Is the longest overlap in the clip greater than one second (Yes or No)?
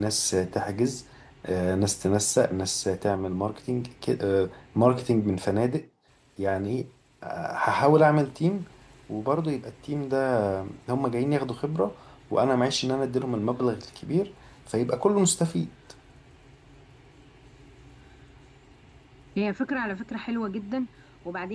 No